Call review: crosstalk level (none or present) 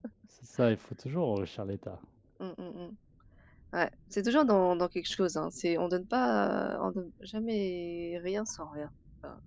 none